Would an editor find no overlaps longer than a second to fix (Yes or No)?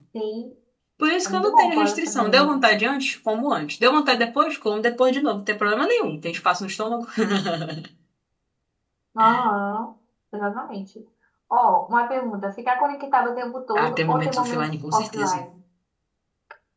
No